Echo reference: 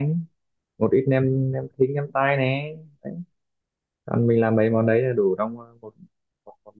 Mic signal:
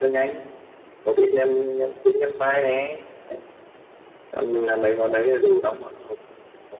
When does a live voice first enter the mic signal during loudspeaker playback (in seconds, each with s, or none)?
none